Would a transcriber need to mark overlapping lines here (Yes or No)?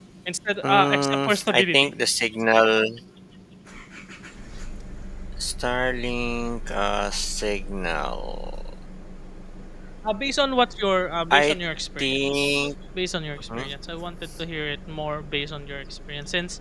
Yes